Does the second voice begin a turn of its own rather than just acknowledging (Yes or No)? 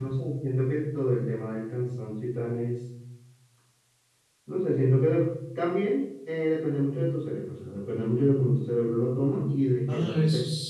Yes